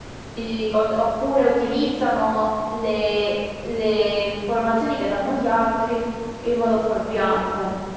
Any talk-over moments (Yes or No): No